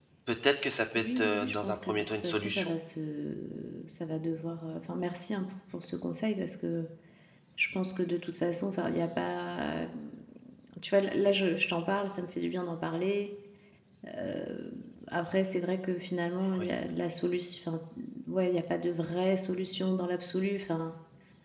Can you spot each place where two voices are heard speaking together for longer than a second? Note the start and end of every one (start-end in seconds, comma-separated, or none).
1.0-2.7